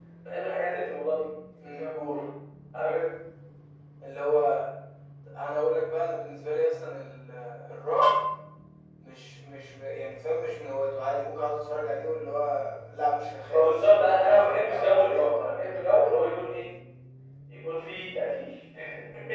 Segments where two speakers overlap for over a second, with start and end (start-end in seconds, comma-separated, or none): 13.5-16.1